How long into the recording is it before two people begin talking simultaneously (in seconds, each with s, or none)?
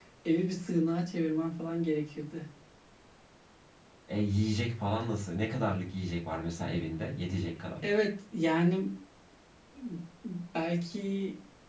none